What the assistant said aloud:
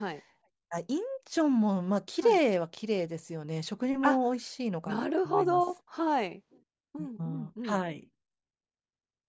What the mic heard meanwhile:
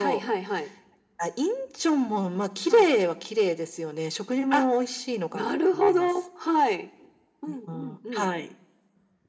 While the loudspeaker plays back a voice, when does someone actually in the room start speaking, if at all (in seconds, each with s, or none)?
none